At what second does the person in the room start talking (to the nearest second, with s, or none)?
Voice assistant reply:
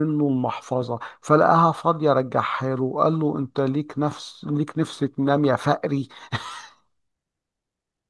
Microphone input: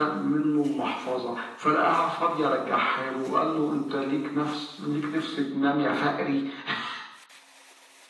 none